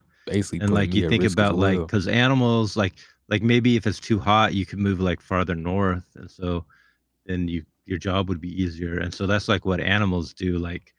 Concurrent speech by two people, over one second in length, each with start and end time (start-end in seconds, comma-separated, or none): 0.6-1.8